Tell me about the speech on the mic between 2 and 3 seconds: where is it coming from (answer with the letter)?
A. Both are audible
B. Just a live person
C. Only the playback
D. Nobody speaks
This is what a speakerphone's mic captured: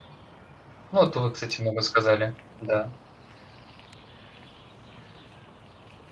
B